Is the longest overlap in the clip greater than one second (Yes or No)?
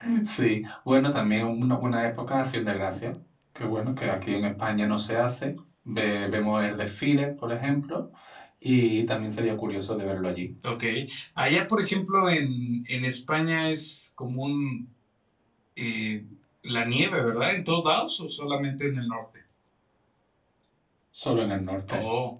No